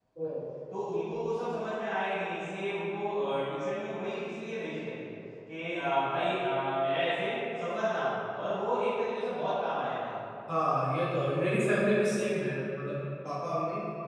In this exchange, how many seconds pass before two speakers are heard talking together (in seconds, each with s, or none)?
none